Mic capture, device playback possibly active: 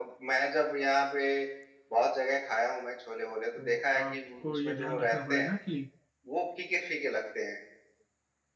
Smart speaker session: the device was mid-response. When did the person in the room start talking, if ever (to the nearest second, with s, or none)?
4 s